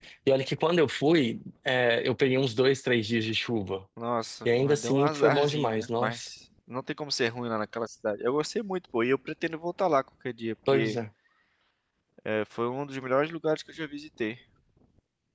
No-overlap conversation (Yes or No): No